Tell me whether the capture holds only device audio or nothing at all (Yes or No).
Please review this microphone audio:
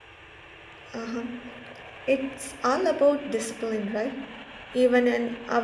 No